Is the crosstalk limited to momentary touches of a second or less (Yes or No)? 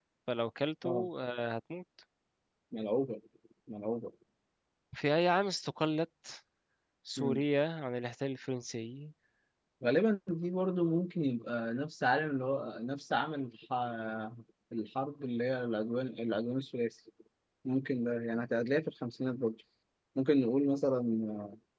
Yes